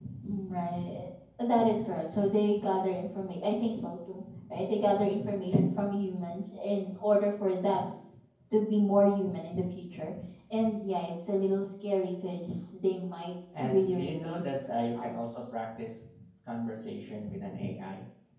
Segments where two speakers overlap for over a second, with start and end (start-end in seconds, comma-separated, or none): 13.5-15.6